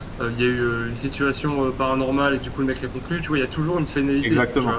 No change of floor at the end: No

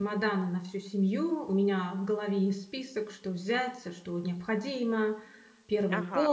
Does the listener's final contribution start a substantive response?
Yes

